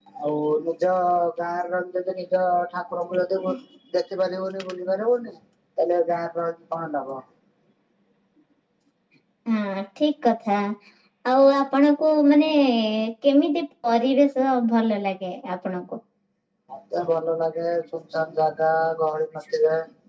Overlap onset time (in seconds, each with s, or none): none